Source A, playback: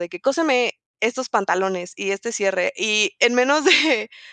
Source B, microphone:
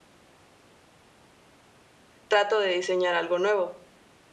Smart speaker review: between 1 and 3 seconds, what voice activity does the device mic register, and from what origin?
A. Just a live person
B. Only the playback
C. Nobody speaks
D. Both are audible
A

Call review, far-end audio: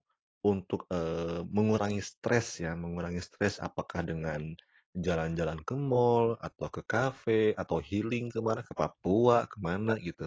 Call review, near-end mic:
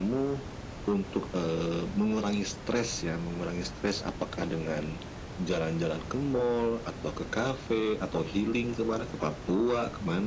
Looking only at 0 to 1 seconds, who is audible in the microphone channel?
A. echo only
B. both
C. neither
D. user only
A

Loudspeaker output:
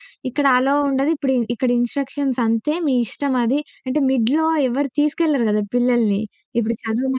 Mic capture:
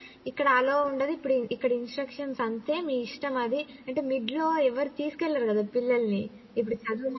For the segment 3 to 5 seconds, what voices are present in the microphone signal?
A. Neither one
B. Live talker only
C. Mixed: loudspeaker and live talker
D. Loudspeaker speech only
D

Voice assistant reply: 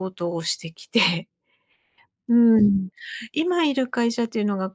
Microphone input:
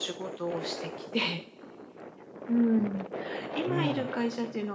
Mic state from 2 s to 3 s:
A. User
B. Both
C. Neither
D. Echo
D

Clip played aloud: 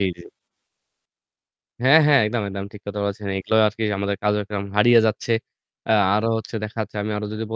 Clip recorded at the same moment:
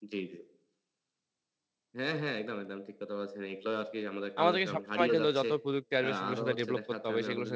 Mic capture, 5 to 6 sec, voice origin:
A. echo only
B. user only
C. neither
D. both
D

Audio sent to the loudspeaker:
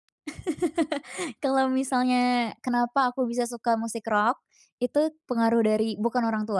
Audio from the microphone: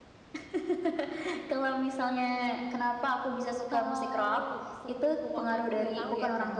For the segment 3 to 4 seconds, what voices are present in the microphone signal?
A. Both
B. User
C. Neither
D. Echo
A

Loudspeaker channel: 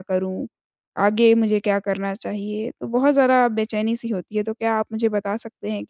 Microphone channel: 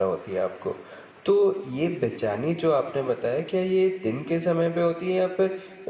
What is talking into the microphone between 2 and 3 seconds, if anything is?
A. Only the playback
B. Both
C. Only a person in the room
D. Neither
C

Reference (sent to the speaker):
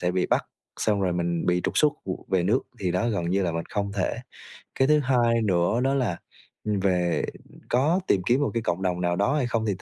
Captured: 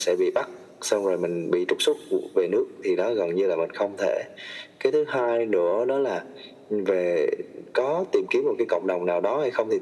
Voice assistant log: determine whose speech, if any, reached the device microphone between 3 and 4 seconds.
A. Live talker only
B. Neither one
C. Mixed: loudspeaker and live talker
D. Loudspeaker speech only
D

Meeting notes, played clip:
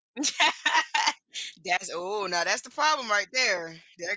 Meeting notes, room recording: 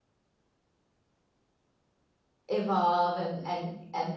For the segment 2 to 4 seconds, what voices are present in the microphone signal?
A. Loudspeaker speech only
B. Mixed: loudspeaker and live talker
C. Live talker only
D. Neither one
C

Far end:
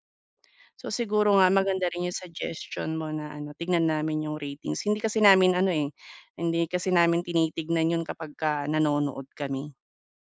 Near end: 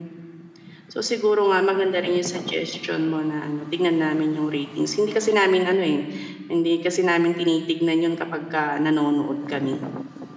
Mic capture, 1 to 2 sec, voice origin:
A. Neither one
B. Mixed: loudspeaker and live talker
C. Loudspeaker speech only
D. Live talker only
C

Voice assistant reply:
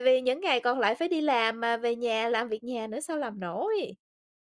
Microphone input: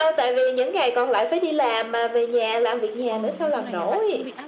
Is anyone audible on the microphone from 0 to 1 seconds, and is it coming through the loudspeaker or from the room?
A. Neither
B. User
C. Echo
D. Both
C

